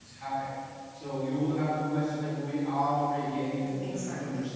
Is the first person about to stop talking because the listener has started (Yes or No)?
Yes